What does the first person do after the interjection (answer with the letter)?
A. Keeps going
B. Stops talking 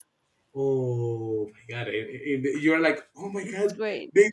A